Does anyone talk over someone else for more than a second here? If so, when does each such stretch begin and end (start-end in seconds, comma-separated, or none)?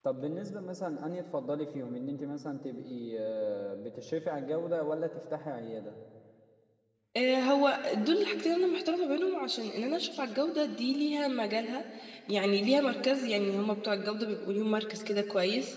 none